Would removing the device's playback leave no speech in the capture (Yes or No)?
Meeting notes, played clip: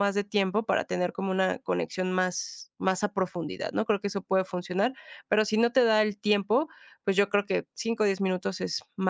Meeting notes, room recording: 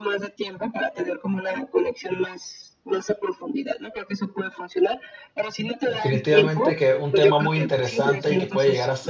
No